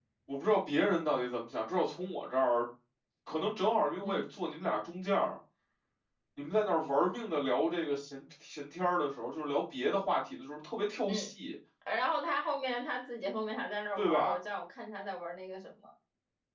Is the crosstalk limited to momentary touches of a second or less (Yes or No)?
Yes